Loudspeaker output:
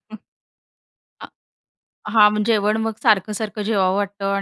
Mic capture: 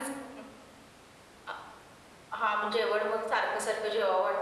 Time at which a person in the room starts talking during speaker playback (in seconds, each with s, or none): none